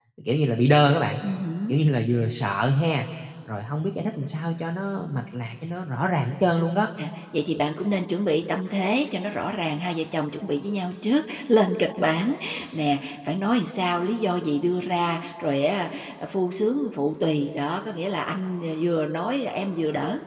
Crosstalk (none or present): none